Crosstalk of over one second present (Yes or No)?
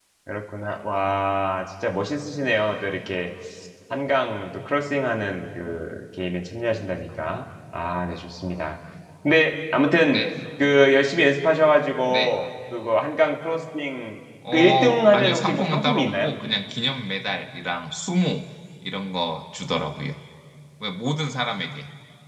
Yes